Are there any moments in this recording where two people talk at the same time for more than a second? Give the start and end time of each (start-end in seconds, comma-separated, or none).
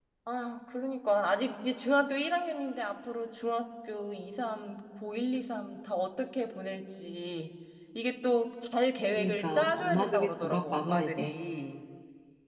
9.2-11.4